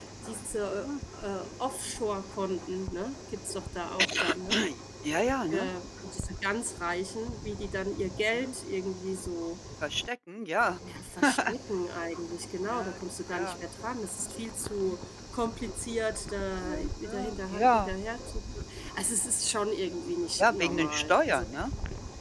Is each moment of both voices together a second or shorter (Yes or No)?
No